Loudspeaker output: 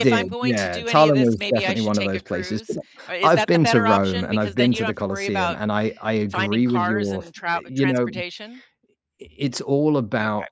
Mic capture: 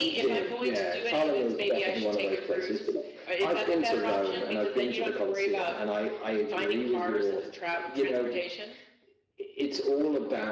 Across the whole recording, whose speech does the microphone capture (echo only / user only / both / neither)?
echo only